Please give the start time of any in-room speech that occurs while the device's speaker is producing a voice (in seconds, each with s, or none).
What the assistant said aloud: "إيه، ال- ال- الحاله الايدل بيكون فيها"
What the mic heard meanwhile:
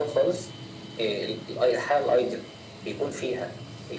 none